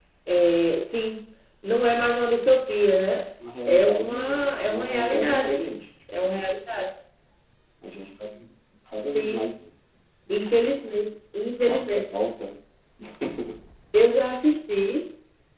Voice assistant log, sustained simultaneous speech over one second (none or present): present